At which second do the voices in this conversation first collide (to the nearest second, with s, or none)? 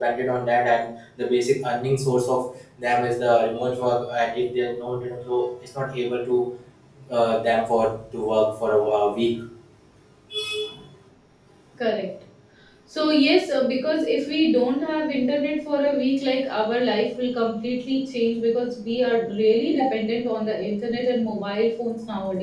none